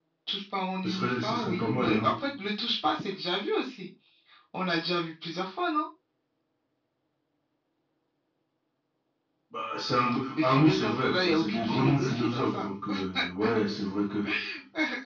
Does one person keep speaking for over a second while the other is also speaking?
Yes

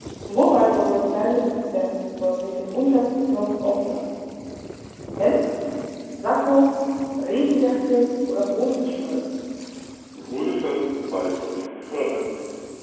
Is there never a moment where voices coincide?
Yes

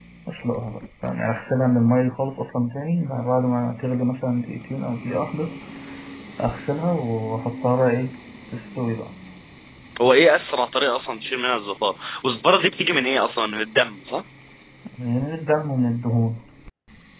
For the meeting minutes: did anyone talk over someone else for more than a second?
No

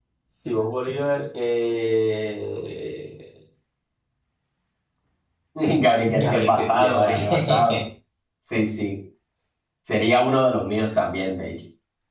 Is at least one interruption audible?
Yes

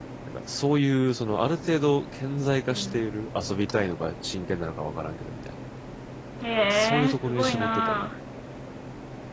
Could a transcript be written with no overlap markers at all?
No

